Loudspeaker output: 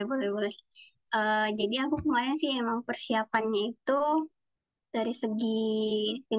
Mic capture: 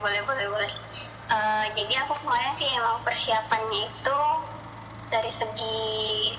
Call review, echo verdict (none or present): present